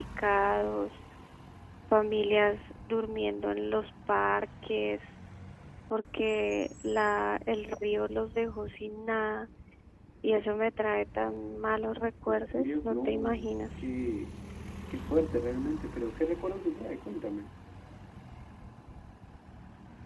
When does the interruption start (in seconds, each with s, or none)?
12.3 s